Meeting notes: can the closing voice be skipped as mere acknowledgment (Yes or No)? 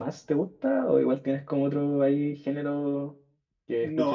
No